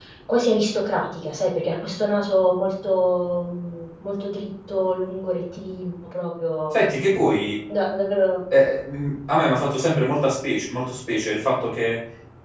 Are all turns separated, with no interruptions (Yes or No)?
Yes